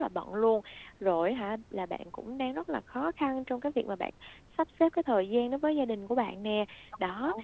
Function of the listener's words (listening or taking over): listening